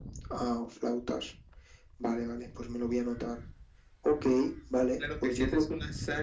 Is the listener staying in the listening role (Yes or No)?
No